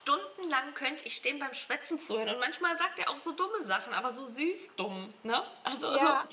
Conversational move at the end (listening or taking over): taking over